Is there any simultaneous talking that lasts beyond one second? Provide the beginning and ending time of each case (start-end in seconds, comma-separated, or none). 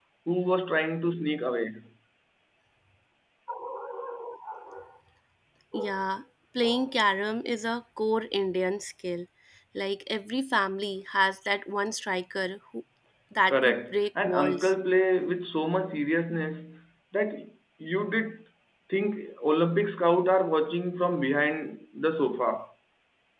13.5-14.7